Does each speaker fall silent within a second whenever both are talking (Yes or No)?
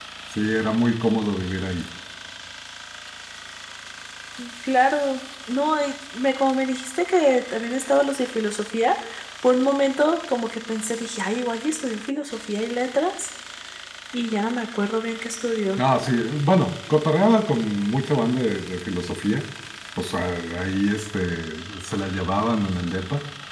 Yes